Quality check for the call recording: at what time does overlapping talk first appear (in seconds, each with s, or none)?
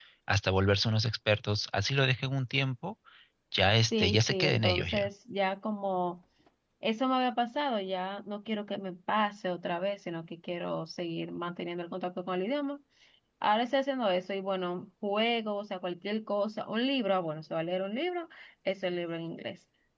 3.8 s